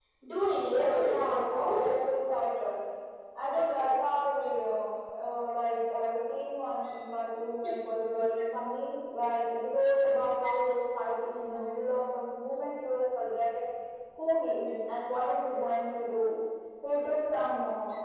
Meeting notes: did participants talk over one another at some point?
Yes, from 0.6 s

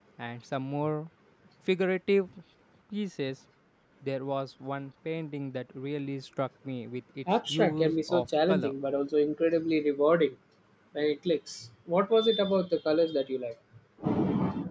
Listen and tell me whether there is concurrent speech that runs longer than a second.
Yes, from 7.3 s

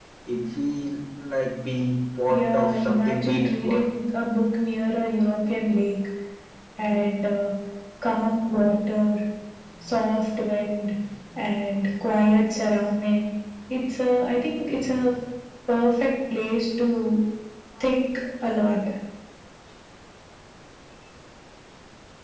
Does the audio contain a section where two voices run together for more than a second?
Yes, from 2.3 s

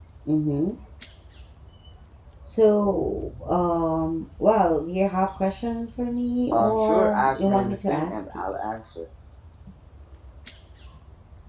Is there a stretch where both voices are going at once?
Yes, from 6.5 s

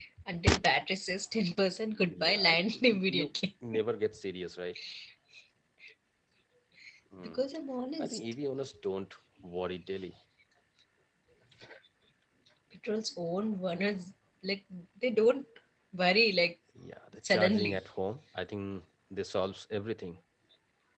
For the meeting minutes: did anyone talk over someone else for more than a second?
Yes, from 2.1 s

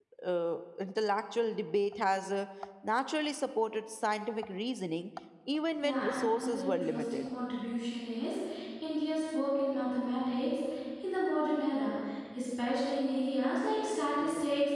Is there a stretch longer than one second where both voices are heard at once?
Yes, from 5.8 s

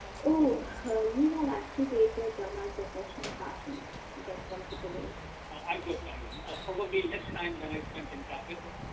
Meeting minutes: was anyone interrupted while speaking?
No

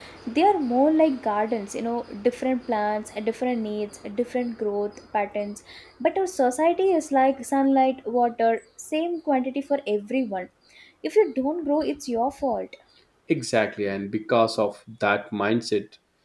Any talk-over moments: No

